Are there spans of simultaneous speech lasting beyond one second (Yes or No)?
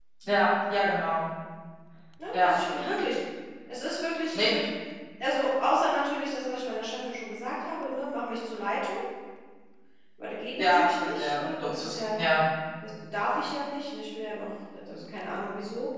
Yes